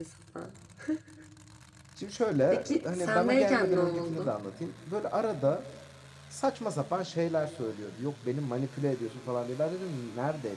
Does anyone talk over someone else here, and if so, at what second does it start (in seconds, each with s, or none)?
2.5 s